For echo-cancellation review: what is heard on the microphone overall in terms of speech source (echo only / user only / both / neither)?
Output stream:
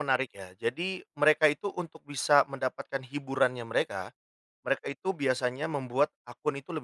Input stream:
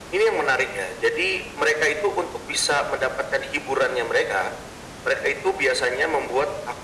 echo only